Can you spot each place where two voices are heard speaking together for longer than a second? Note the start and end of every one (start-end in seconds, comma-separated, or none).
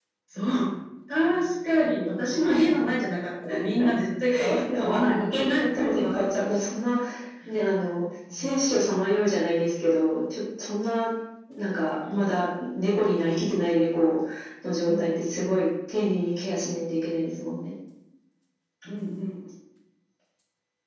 4.5-6.5